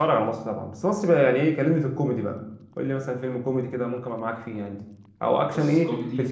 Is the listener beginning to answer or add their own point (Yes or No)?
No